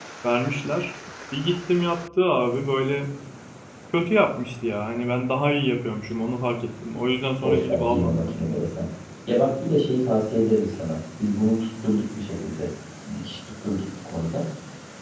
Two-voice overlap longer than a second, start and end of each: 7.4-8.6

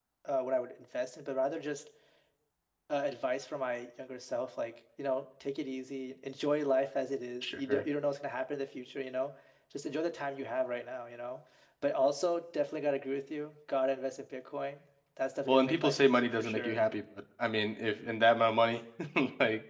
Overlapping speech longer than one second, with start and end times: 15.5-16.8

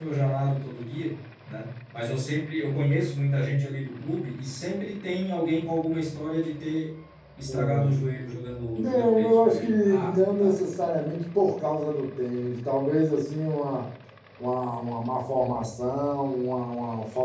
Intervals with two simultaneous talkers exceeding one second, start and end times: 8.8-10.6

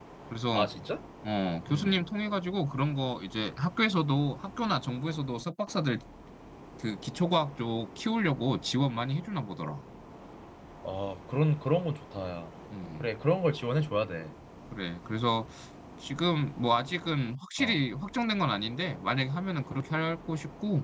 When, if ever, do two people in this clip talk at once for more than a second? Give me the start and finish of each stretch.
none

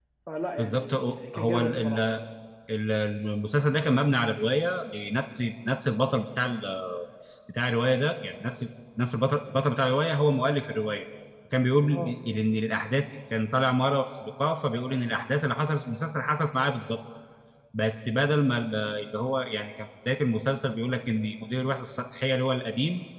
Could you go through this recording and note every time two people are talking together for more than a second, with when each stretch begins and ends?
0.6-2.0

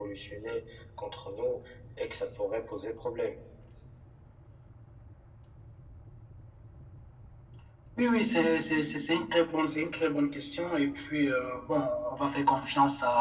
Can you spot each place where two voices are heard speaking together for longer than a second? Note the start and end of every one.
none

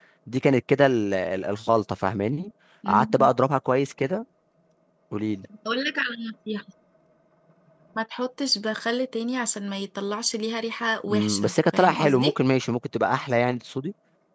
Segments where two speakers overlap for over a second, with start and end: 11.1-12.3

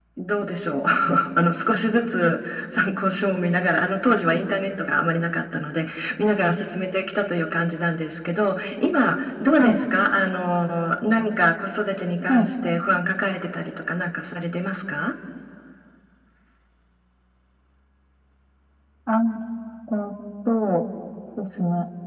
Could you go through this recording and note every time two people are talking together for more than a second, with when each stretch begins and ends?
none

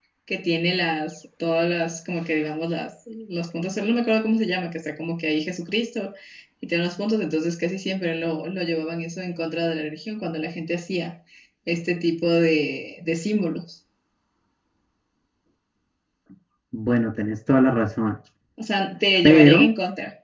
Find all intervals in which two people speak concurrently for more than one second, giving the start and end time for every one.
none

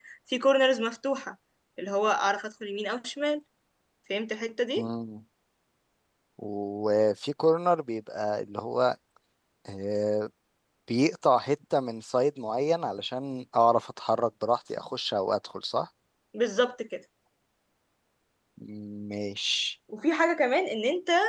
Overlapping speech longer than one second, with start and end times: none

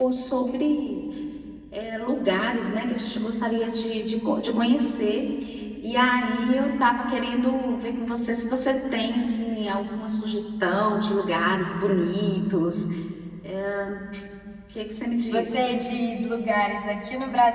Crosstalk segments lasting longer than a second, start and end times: none

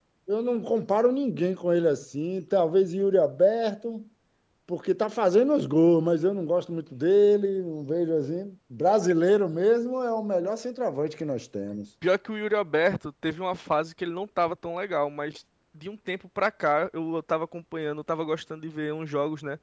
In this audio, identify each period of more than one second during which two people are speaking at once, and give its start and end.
none

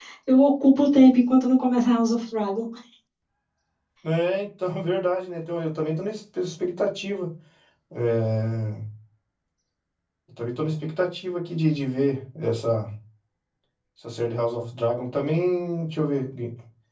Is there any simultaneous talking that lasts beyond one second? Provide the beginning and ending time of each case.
none

